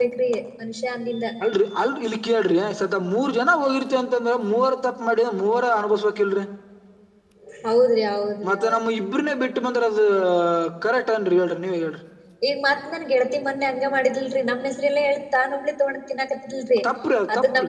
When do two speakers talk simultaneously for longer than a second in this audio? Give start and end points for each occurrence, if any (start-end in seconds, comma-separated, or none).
none